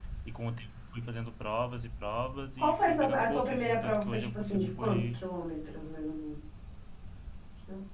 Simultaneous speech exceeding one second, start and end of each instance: 2.6-5.2

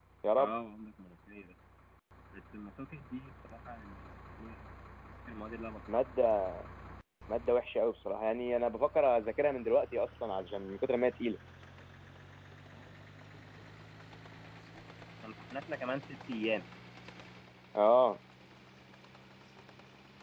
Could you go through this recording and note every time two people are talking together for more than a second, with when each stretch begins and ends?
none

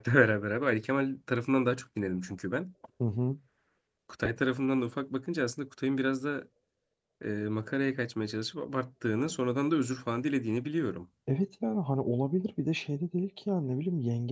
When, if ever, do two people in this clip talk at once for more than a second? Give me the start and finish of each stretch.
none

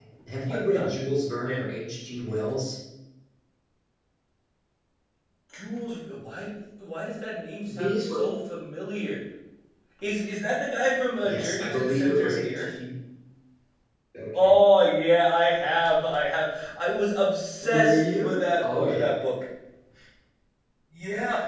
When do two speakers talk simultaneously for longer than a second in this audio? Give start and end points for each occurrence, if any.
11.2-12.8, 17.6-19.1

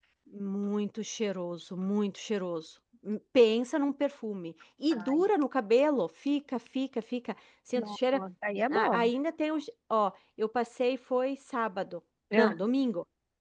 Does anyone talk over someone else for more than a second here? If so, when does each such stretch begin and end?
none

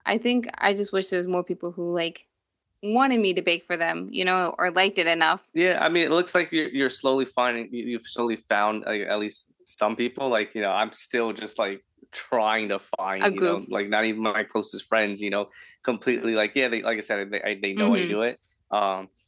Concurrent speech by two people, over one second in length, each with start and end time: none

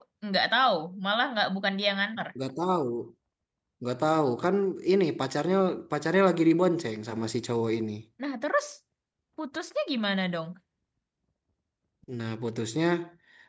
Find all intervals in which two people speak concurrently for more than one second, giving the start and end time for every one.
none

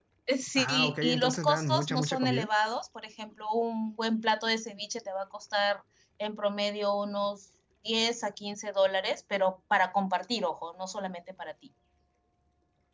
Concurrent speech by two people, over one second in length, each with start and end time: 0.6-2.5

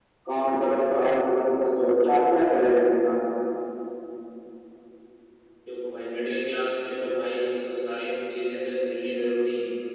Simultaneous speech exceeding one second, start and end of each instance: none

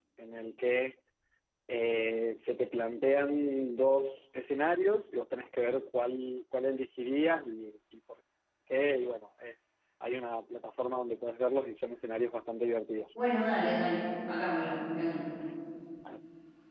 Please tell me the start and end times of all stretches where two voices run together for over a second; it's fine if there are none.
none

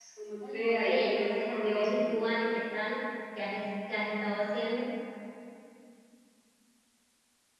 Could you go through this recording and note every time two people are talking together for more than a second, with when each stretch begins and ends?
0.5-2.1

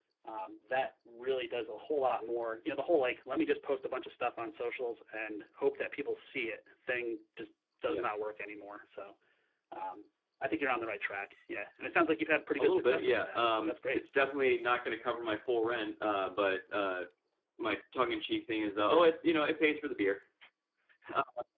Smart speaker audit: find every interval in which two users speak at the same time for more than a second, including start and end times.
12.6-14.0

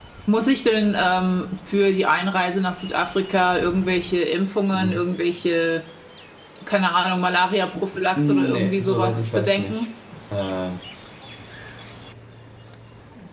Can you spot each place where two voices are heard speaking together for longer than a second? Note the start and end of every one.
8.2-9.9

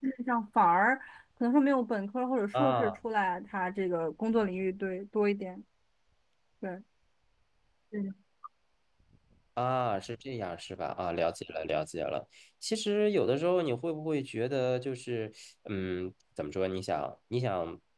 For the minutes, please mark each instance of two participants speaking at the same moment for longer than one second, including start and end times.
none

